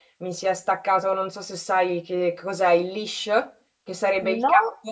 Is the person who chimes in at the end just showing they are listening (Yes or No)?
Yes